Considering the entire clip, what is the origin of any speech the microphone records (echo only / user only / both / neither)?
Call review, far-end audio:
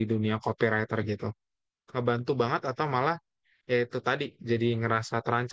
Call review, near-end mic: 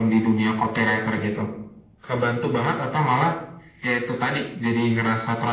echo only